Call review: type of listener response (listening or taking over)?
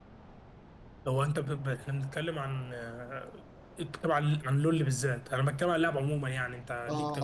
taking over